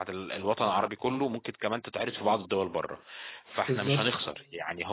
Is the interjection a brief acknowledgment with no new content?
Yes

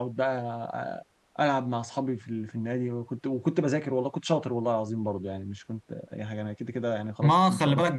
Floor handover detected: Yes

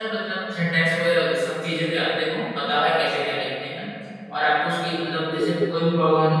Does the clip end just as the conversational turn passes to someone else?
No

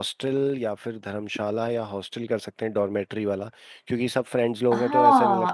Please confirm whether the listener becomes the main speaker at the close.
Yes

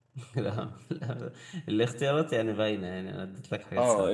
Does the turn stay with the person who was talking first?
No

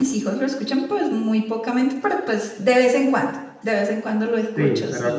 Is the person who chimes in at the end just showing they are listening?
No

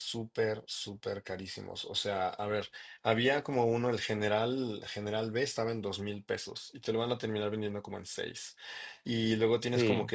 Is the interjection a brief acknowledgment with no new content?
Yes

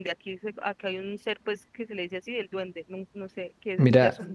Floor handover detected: Yes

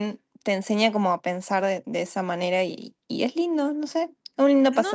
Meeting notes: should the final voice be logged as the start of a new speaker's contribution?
Yes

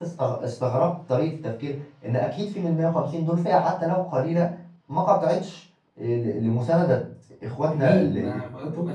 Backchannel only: No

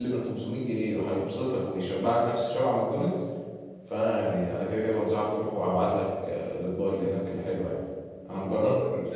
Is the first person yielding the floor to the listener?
Yes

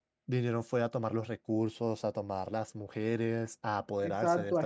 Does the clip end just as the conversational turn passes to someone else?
Yes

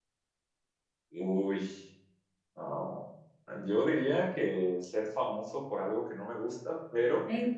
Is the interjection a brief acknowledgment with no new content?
Yes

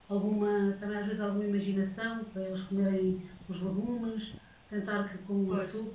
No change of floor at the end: Yes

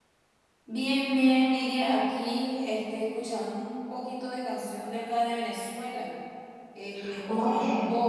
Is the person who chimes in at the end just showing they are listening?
Yes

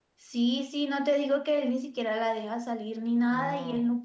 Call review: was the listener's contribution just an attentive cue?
Yes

